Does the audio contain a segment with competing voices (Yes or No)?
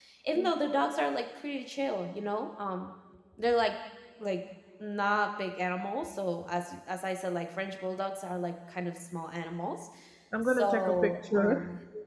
Yes